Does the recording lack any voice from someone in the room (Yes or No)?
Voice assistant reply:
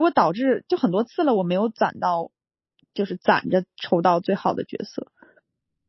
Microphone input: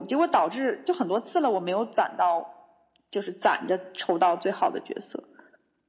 Yes